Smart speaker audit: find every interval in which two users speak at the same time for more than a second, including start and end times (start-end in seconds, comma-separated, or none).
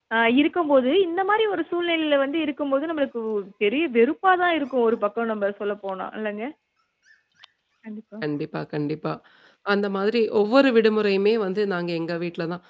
none